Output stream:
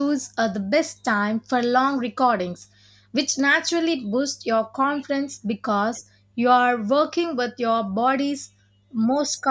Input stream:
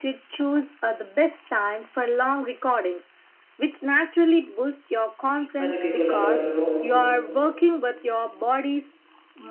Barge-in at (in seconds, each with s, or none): 5.6 s